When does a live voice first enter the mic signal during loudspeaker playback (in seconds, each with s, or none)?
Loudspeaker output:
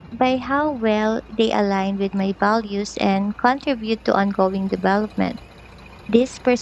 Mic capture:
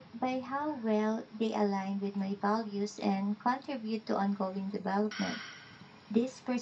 none